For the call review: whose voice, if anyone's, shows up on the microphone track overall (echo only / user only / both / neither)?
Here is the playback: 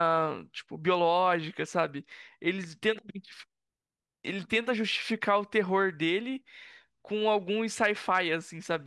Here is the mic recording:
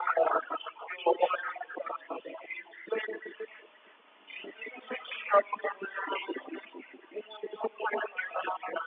echo only